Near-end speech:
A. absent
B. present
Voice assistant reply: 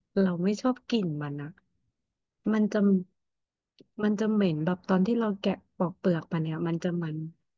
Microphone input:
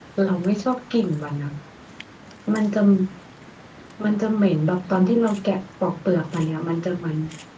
A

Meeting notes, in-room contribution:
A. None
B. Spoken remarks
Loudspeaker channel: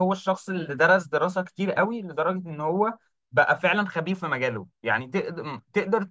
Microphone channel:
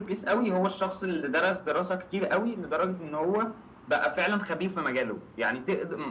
A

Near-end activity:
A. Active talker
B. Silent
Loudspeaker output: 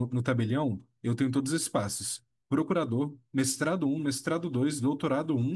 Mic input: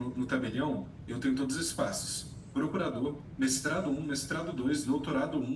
B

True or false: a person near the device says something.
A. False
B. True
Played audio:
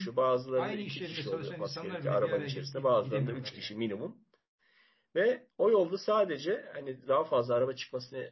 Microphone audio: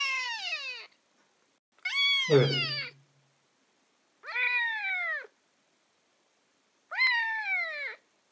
B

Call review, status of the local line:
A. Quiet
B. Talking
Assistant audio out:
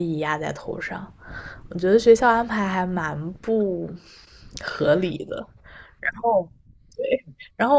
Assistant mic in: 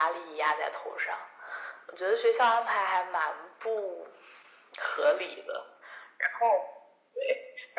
A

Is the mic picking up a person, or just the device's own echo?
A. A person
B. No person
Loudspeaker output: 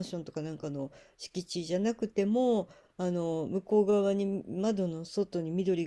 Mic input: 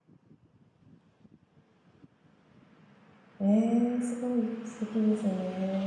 A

